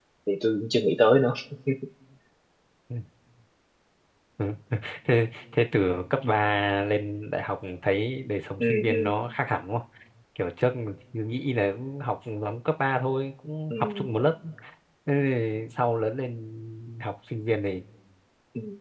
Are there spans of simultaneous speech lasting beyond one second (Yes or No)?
No